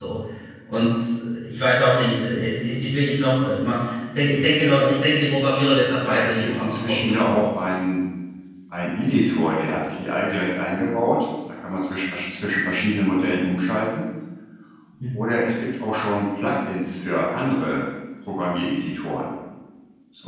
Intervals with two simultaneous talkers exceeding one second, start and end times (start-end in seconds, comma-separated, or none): 5.9-7.5